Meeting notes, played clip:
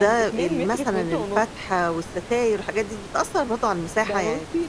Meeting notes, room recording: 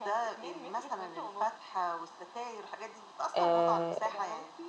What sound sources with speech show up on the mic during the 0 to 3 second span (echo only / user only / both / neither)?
echo only